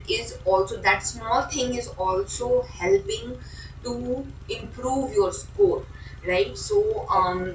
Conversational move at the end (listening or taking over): listening